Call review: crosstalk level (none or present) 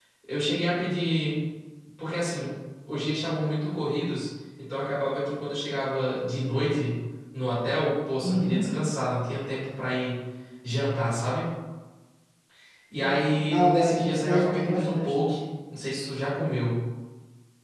present